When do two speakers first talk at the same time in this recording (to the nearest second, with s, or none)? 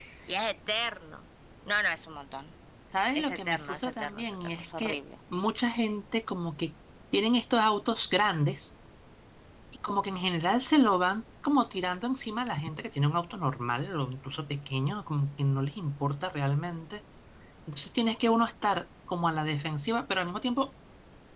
3 s